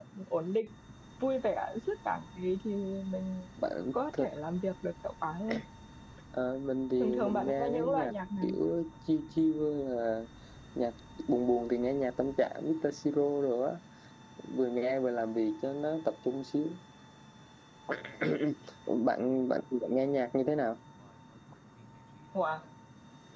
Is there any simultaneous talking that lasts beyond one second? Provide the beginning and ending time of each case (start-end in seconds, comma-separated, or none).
7.0-8.5